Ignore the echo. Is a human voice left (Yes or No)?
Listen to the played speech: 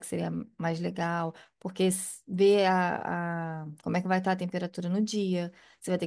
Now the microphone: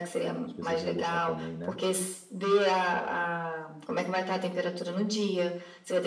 Yes